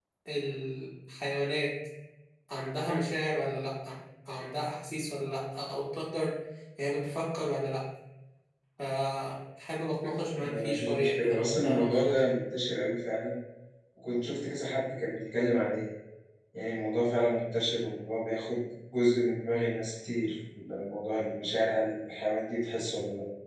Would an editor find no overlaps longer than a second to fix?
No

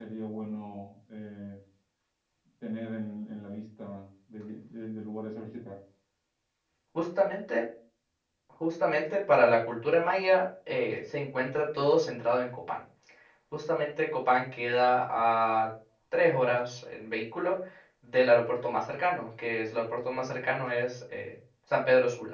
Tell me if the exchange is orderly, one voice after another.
Yes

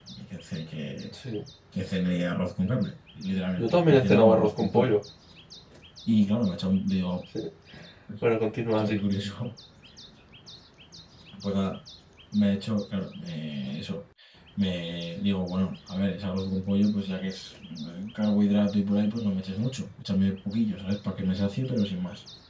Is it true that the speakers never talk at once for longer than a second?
No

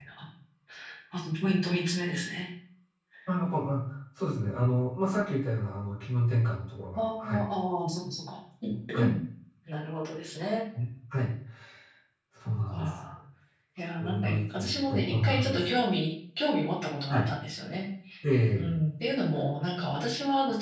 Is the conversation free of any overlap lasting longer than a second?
No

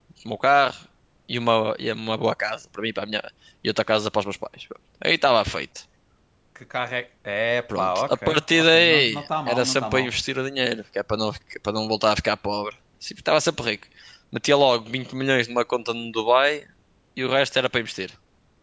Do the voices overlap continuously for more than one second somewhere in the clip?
Yes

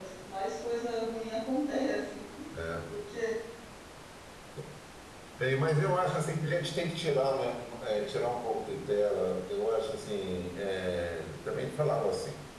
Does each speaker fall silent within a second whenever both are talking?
Yes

